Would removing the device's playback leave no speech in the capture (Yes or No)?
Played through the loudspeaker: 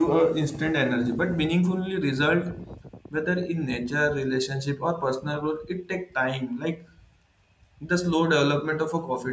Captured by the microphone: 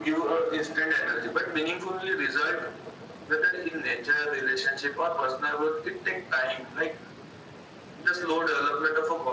Yes